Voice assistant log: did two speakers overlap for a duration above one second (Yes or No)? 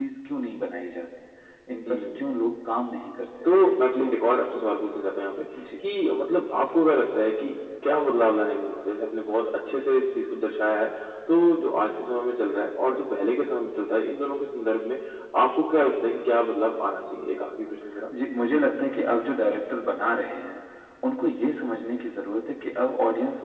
No